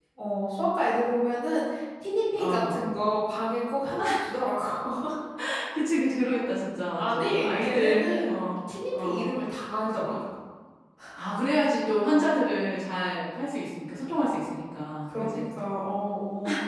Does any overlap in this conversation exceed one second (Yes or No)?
Yes